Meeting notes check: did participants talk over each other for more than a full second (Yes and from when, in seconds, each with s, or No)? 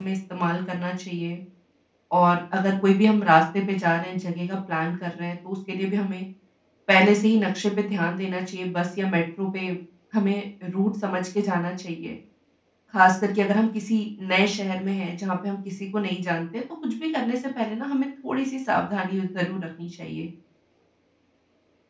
No